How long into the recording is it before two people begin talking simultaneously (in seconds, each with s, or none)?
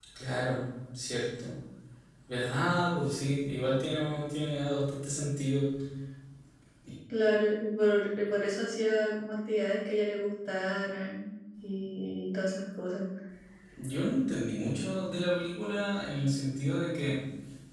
none